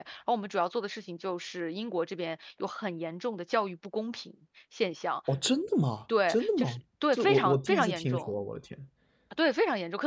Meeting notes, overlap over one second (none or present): present